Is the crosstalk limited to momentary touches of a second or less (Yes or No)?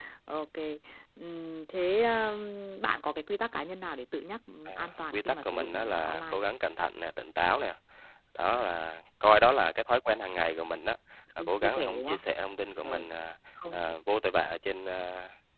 No